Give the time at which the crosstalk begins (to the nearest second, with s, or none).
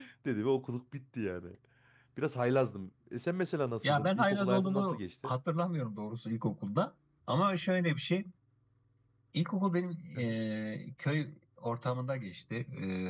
4 s